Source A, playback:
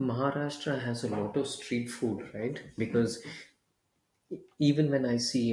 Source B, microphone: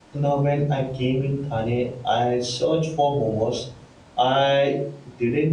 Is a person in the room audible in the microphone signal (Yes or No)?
Yes